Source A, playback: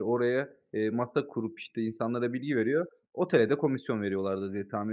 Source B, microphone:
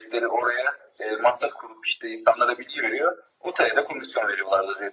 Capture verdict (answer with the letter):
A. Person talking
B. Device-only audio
B